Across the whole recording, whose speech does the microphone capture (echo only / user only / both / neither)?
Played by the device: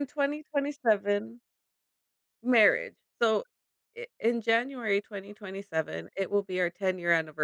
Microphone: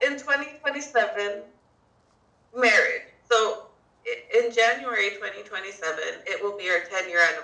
echo only